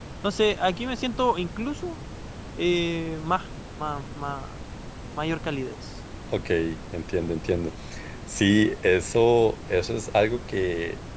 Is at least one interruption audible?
No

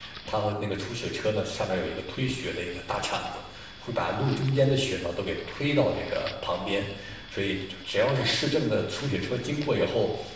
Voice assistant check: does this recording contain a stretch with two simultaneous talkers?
No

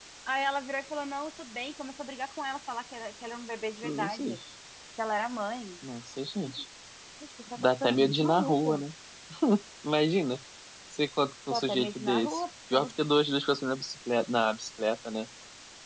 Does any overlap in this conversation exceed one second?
Yes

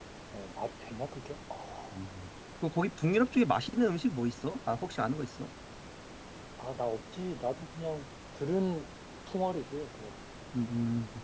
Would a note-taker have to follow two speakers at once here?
No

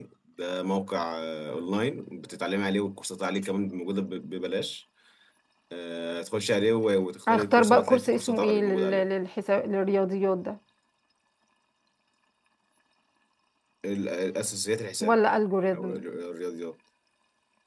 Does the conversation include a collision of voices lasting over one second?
Yes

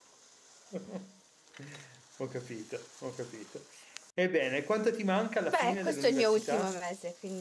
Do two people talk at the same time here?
Yes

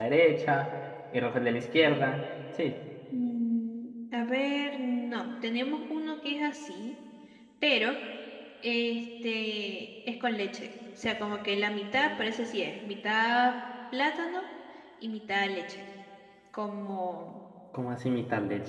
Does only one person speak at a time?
Yes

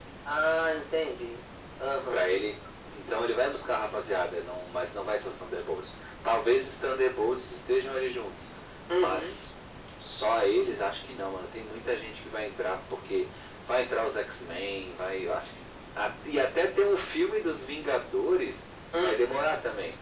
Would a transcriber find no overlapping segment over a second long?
Yes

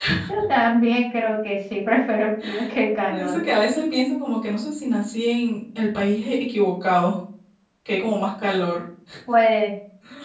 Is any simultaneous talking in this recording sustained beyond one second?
No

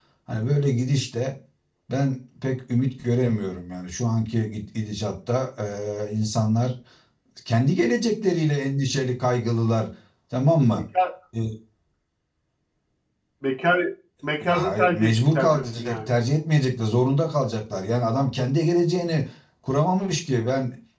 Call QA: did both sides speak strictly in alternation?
No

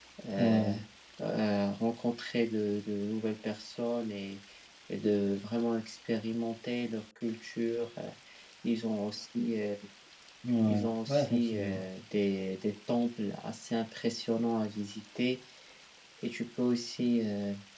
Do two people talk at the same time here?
Yes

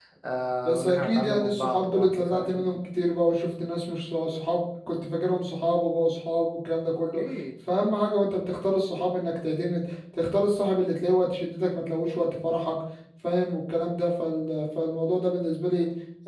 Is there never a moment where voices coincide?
No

